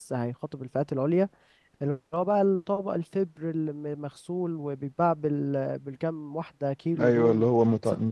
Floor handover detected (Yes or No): Yes